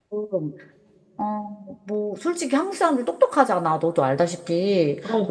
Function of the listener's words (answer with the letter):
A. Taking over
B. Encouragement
B